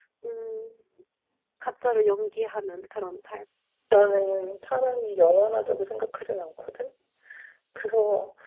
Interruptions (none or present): none